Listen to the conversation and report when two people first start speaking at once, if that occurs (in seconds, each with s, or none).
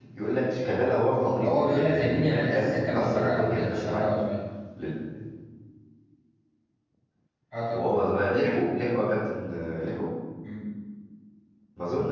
1.4 s